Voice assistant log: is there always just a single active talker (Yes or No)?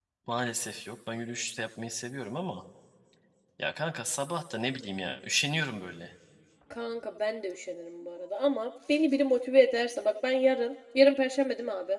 Yes